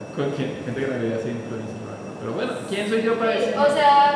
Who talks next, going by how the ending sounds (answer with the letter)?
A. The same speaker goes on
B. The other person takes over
B